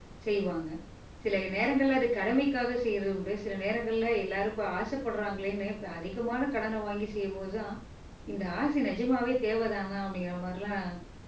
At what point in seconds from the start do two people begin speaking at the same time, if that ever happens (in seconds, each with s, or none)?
none